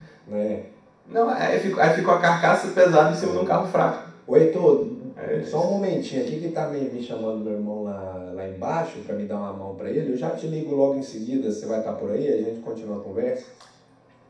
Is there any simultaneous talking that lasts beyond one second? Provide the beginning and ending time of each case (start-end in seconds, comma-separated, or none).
none